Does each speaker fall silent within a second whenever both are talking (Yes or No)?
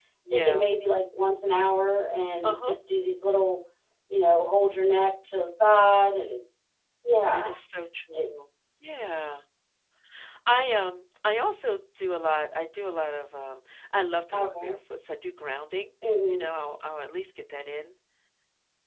Yes